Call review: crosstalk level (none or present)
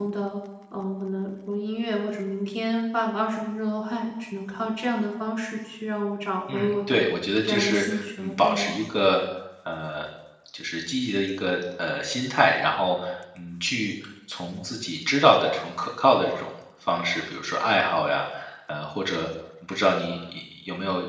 present